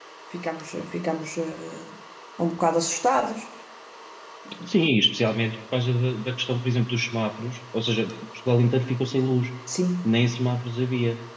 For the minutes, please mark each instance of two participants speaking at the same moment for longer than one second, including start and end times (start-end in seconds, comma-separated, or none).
none